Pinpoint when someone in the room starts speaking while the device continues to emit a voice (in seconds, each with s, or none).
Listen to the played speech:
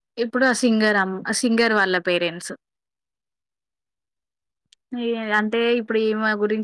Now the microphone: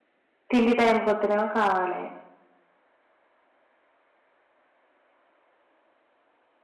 0.5 s